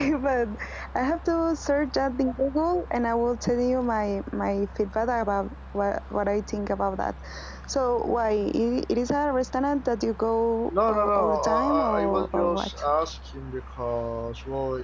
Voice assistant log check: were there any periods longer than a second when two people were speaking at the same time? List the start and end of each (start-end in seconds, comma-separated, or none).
10.9-12.9